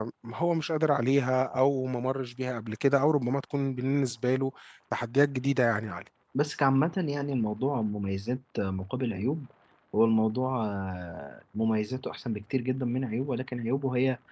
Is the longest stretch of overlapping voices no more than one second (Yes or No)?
Yes